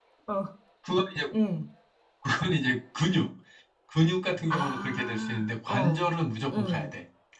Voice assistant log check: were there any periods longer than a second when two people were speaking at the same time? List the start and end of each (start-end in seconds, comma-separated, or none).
4.5-6.1